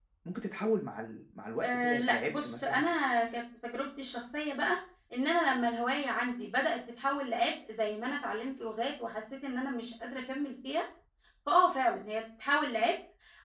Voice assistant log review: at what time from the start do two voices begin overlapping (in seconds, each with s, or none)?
1.6 s